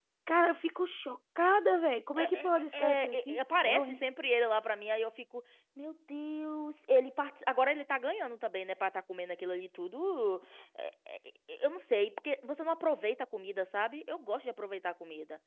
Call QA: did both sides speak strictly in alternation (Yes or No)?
No